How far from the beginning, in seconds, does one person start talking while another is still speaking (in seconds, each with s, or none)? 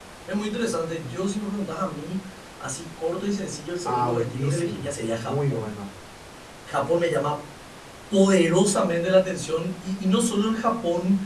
3.9 s